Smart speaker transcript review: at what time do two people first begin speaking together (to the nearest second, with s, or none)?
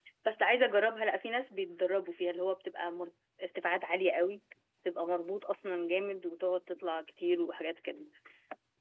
none